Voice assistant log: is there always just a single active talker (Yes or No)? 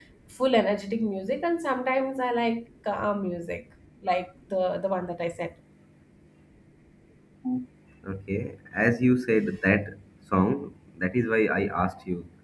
Yes